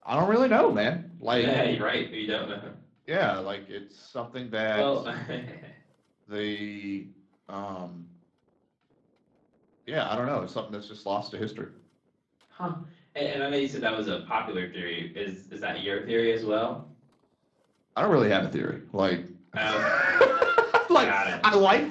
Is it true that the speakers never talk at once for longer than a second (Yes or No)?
Yes